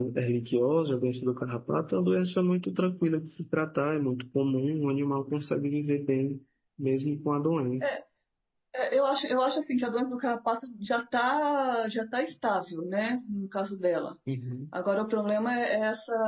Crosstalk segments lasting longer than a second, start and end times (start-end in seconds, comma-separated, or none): none